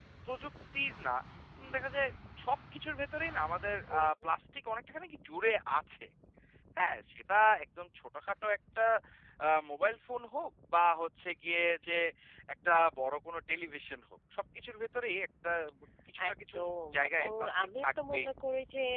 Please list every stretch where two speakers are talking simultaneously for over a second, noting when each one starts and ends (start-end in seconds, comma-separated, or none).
16.9-18.3